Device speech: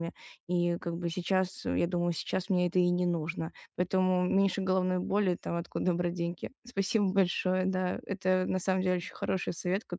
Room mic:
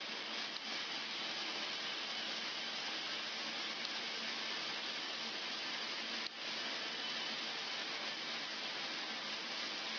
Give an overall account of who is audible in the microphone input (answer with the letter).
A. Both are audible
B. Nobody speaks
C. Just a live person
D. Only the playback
B